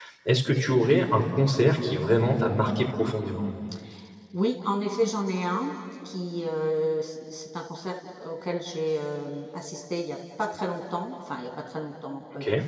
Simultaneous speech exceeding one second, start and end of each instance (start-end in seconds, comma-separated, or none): none